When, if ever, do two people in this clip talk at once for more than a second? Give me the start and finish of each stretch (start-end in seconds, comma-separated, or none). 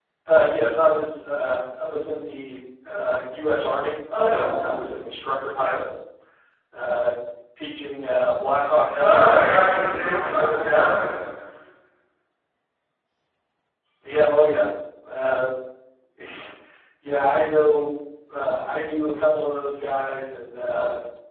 9.0-10.7